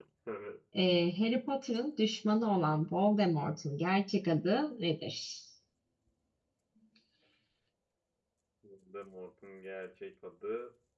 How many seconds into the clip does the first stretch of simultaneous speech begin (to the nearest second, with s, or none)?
none